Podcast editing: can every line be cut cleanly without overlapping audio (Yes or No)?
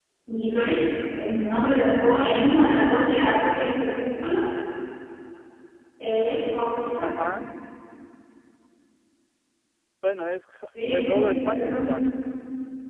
No